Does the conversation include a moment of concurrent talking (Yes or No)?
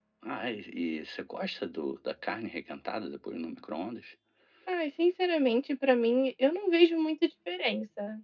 No